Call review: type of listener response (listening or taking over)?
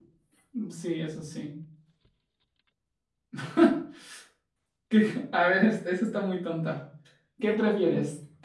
listening